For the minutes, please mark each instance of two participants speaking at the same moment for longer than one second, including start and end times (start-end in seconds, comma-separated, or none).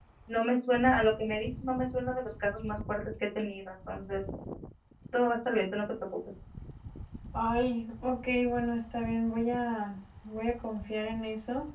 none